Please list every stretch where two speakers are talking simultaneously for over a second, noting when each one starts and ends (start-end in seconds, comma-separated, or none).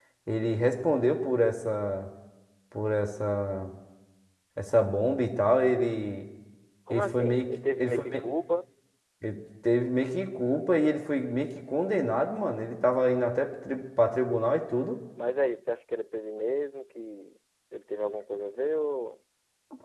6.9-8.2